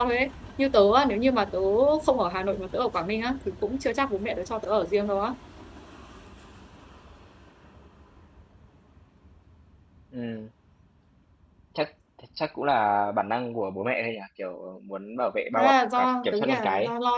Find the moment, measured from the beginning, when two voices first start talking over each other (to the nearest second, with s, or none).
16 s